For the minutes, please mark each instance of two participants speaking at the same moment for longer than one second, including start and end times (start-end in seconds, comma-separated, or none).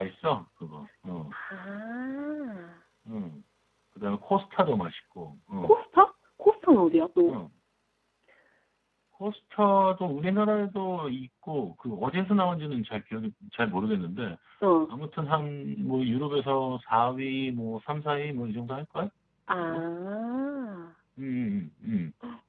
none